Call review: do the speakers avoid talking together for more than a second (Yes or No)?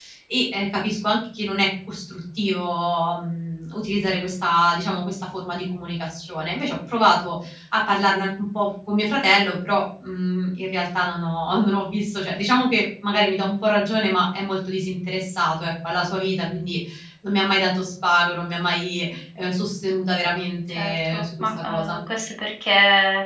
No